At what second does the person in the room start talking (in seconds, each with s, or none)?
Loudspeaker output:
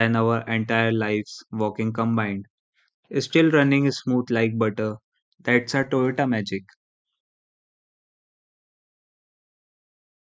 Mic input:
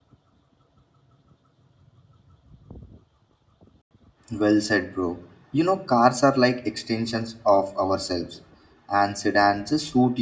4.3 s